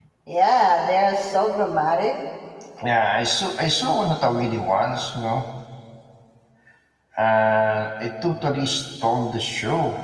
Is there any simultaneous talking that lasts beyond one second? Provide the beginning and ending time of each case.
none

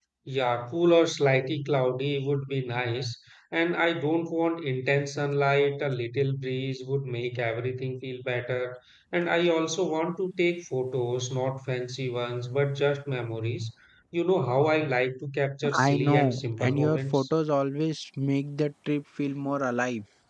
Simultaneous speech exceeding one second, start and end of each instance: 15.8-17.3

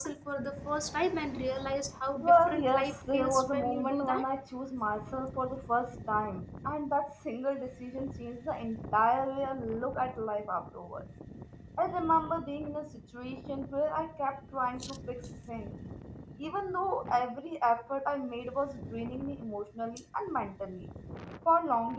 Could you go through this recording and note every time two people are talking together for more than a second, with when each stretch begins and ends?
2.2-4.2

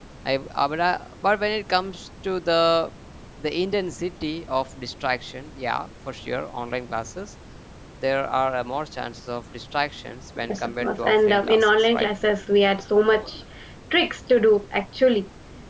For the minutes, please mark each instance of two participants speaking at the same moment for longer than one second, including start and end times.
10.5-12.1

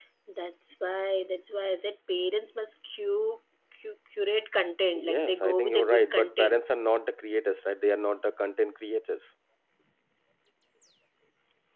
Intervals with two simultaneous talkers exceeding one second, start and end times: 5.0-6.6

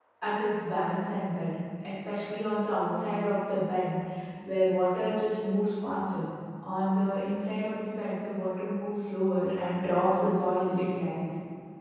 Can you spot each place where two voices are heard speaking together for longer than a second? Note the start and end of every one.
none

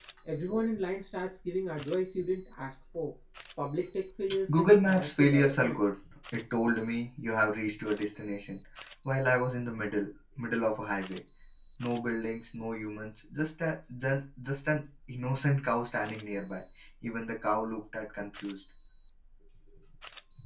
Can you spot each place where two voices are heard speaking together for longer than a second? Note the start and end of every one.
4.5-5.8

